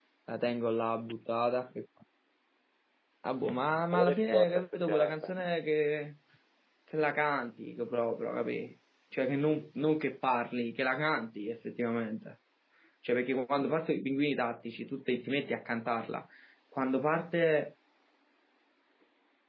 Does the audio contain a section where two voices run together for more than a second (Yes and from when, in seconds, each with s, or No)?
Yes, from 3.9 s